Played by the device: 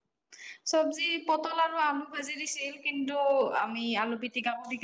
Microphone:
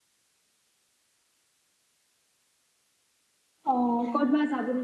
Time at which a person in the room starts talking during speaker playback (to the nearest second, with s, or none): 4 s